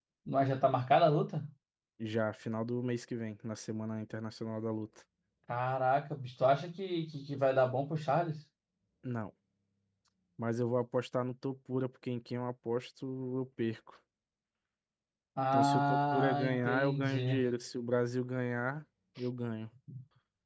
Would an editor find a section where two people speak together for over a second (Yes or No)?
Yes